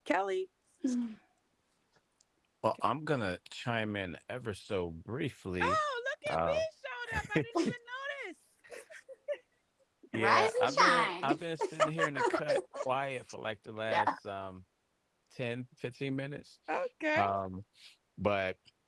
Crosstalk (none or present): present